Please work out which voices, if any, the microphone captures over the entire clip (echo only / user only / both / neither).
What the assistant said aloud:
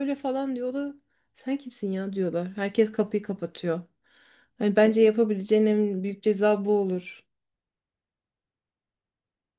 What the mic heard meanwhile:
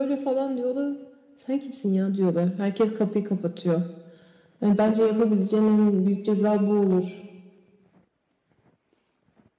echo only